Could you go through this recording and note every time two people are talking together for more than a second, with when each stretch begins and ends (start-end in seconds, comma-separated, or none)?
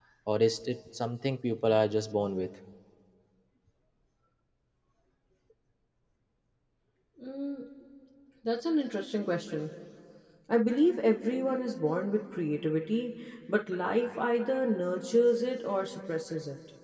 none